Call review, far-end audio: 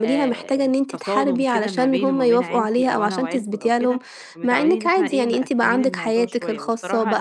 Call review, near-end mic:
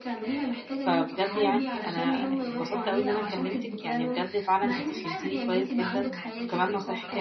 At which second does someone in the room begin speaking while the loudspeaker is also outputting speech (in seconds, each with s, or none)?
0.8 s